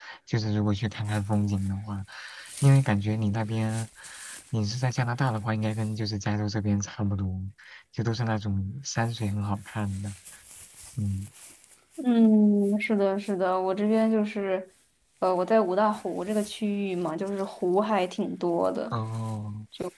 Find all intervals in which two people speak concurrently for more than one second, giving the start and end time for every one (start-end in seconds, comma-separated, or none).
none